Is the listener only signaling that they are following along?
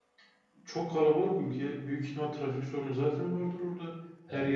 Yes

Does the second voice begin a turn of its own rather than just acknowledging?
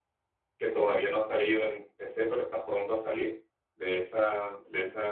No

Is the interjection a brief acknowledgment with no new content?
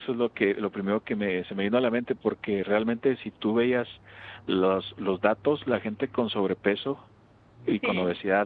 Yes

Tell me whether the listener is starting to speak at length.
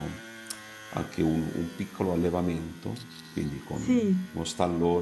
No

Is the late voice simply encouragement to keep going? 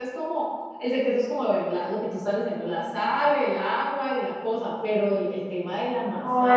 No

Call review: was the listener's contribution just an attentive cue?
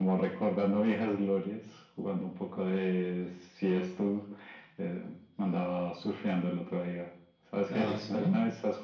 Yes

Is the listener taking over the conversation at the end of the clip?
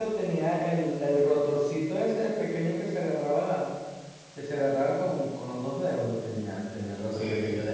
No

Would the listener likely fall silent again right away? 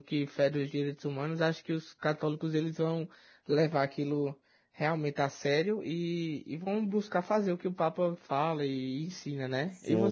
No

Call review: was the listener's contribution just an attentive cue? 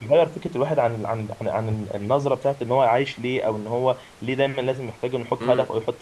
No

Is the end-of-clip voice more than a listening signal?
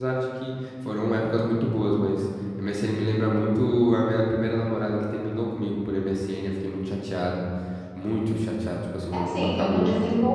Yes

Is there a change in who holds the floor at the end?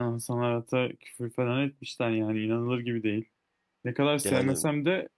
No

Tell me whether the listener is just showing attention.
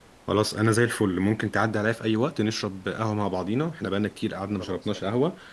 Yes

